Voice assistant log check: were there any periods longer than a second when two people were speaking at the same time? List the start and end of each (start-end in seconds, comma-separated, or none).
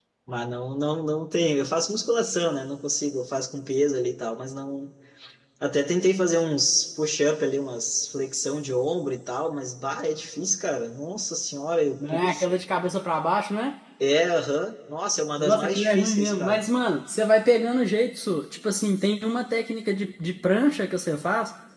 15.4-16.6